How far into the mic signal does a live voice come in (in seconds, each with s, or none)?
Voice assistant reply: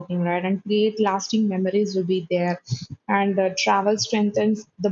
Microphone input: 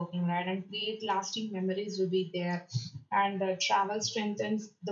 none